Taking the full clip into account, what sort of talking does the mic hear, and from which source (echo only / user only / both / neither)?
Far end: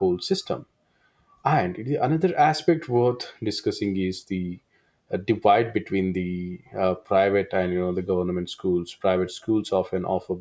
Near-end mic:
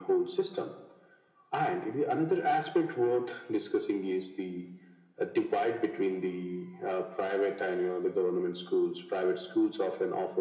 echo only